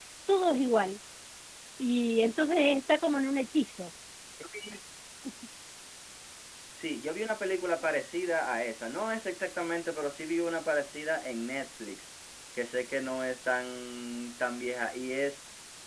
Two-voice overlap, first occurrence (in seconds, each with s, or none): none